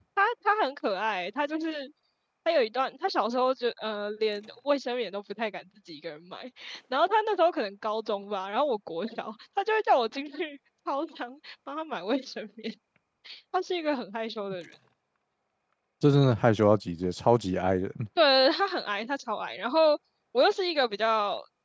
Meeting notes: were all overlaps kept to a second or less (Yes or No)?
Yes